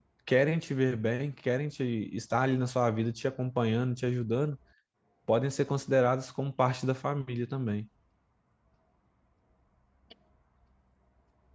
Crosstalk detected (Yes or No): No